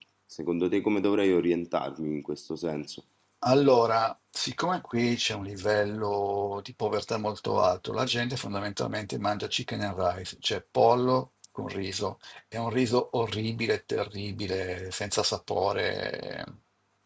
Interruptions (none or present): none